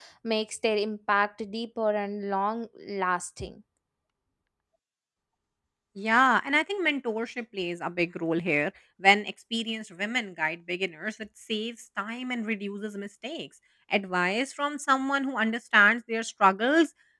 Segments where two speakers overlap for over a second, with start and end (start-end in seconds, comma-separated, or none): none